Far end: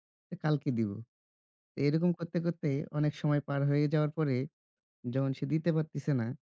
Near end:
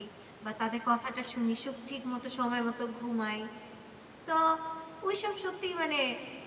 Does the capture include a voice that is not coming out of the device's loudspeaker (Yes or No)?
Yes